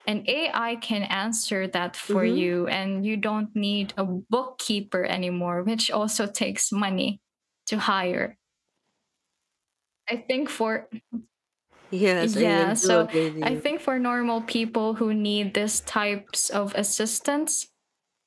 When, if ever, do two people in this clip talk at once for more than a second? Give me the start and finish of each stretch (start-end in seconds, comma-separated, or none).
12.2-13.6